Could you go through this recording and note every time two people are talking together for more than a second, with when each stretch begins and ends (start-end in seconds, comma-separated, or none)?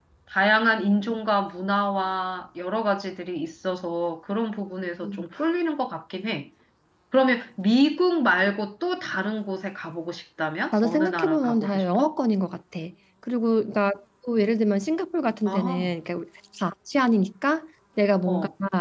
10.7-12.1